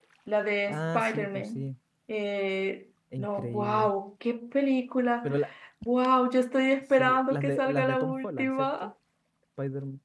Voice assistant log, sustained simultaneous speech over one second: present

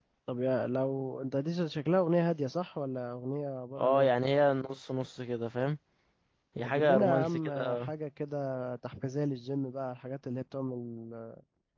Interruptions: present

